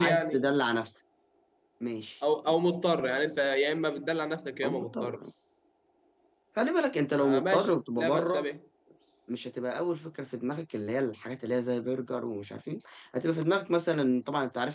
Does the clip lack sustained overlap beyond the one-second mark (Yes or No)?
No